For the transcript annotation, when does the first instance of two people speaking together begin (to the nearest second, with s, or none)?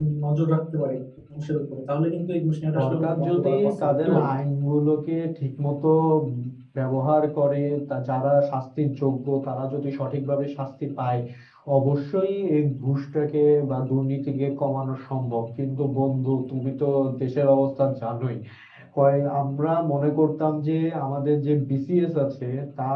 3 s